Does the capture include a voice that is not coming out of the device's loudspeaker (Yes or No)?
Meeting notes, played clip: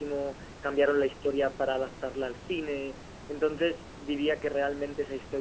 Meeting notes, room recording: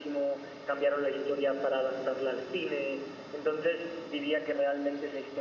No